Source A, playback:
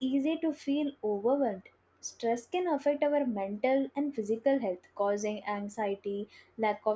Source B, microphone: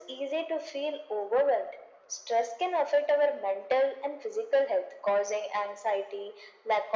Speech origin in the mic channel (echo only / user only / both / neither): echo only